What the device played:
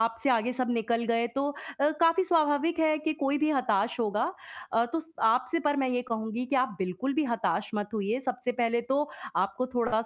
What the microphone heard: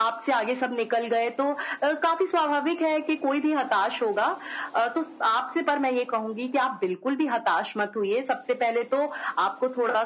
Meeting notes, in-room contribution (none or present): none